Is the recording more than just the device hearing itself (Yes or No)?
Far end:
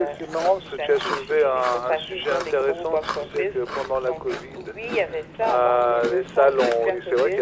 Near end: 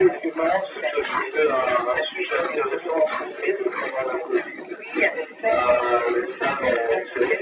No